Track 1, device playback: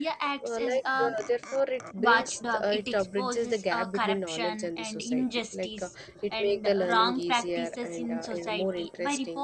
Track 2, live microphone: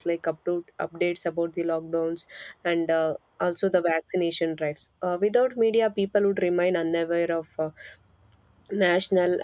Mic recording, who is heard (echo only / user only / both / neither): user only